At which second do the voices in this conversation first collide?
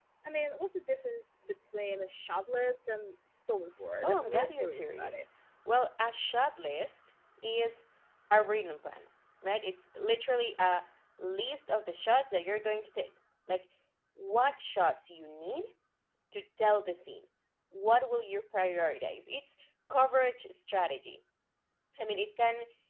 4.0 s

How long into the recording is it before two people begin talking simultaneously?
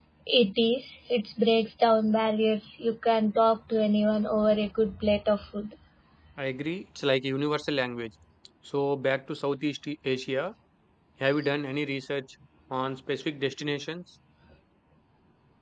none

